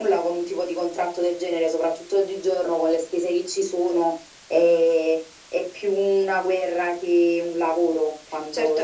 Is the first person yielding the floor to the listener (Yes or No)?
Yes